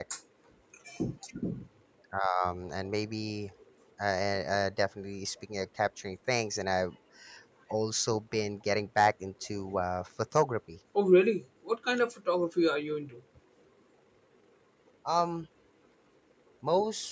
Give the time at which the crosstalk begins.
none

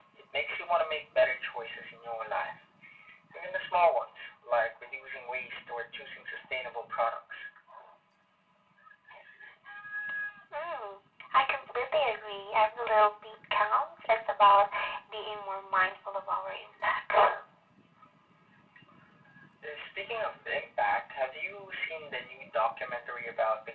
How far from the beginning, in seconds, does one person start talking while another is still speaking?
none

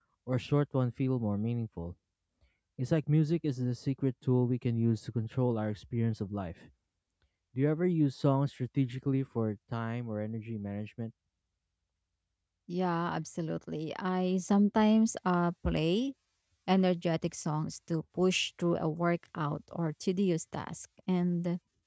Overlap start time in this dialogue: none

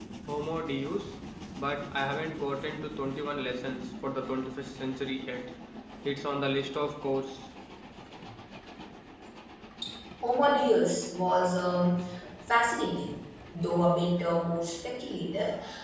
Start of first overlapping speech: none

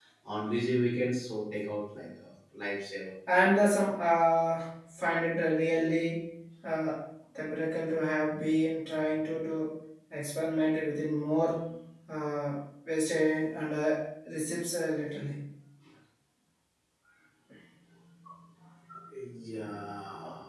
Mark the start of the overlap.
none

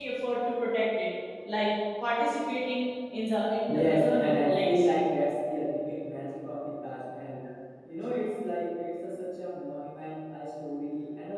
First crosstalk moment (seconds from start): 3.7 s

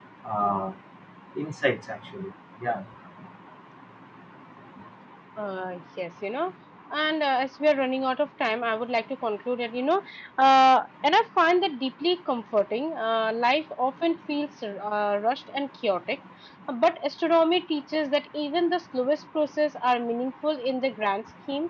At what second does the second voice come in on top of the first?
none

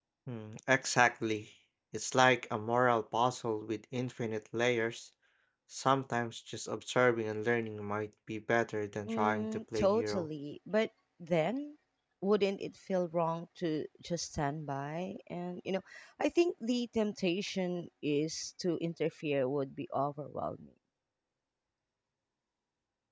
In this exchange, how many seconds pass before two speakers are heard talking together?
9.1 s

